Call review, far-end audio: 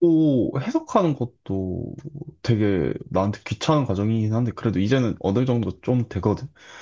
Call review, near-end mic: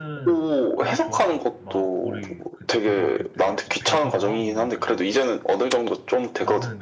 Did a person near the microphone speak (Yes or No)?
Yes